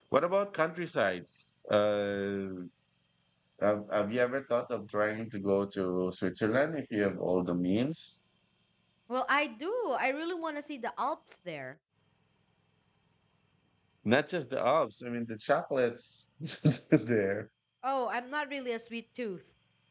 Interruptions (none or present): none